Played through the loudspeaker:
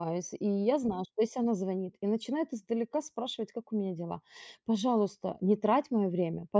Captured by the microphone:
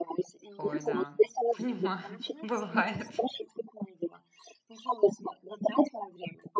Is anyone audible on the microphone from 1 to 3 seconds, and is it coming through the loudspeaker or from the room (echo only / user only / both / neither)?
both